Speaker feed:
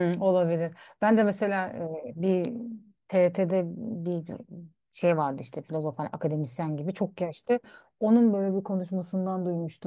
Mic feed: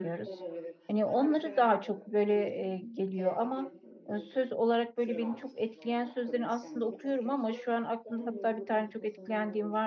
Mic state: both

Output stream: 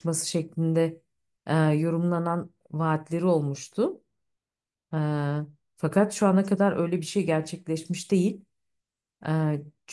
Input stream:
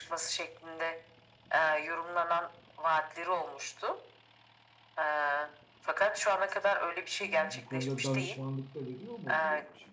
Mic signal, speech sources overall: both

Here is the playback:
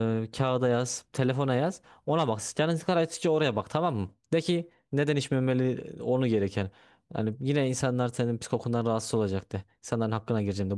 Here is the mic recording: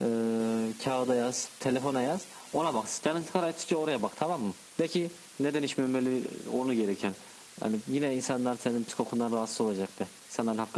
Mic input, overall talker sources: echo only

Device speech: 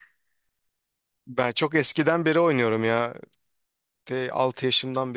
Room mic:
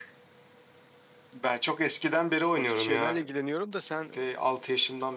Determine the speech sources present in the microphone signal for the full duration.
both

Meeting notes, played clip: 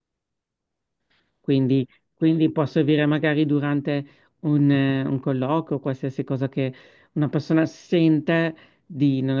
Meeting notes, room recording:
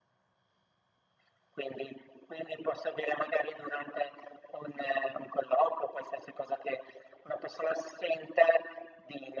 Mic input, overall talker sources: echo only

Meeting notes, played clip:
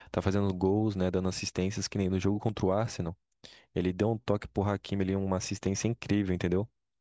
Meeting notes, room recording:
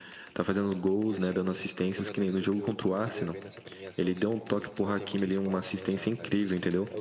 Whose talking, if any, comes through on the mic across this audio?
both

